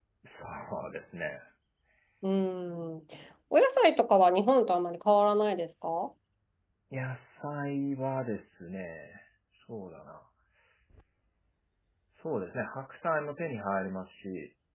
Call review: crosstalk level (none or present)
none